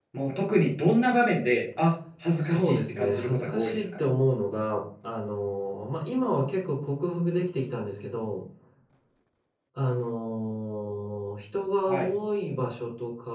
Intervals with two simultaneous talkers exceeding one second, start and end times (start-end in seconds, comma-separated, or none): 2.4-4.0